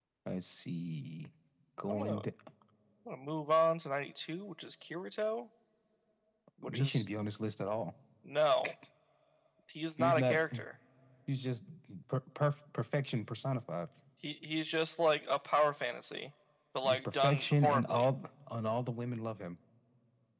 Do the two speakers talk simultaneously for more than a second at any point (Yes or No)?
Yes